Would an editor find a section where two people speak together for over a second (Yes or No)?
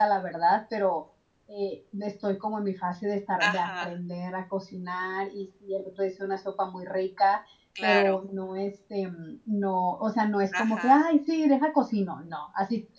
No